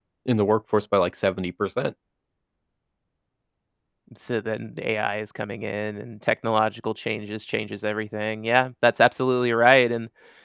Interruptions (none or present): none